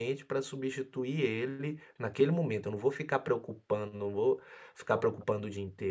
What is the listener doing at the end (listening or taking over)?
listening